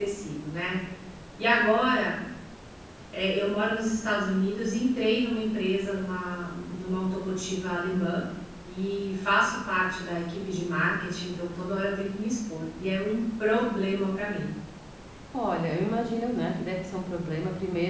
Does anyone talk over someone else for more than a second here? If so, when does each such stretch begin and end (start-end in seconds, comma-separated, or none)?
none